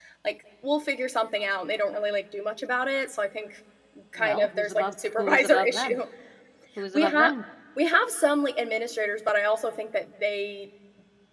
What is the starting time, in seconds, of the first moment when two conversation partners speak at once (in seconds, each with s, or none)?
4.2 s